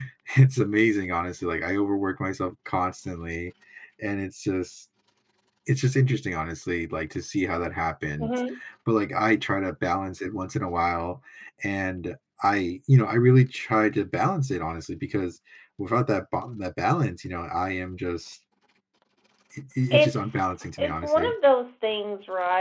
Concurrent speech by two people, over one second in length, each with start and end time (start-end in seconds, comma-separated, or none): 19.9-21.3